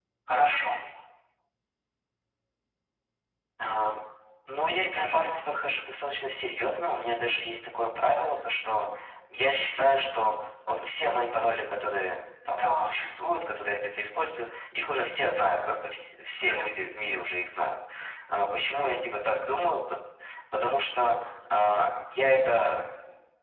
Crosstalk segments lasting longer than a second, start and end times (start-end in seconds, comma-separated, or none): none